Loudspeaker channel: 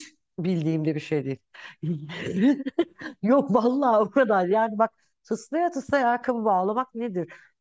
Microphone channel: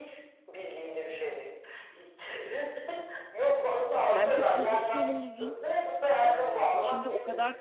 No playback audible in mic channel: No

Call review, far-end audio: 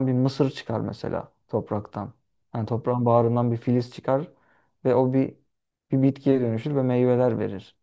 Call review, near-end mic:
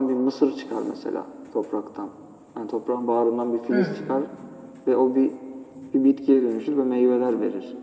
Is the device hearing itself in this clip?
Yes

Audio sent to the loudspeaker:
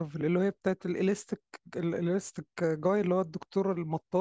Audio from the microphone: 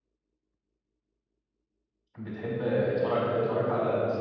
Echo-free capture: Yes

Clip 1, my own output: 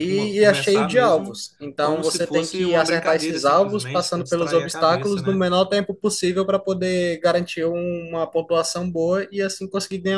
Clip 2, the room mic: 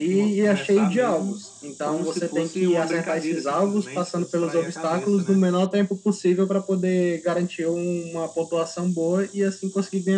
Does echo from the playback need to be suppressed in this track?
Yes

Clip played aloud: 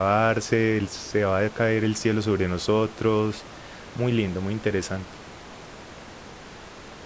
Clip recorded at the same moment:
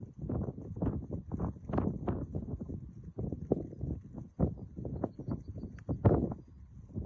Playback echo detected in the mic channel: No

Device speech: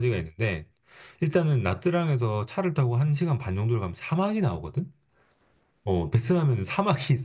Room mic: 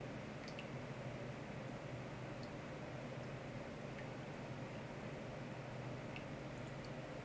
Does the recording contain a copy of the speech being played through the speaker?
No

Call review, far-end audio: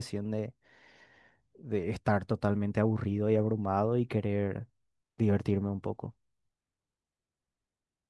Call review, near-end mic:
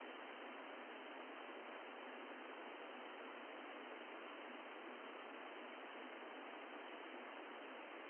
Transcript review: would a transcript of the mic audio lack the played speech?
Yes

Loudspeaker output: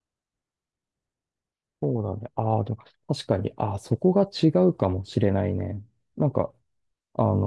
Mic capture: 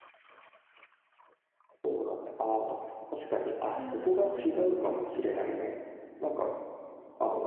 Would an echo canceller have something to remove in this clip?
Yes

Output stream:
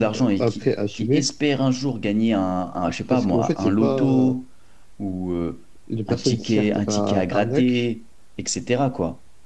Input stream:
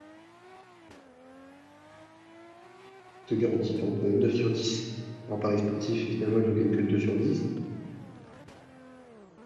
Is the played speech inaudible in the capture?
Yes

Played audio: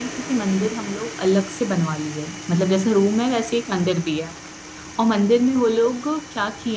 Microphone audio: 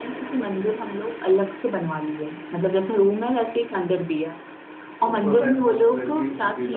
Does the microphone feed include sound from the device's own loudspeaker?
Yes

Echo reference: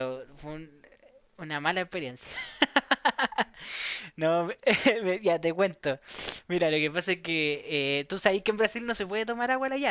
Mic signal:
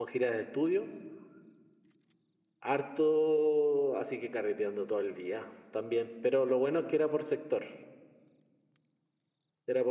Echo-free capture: Yes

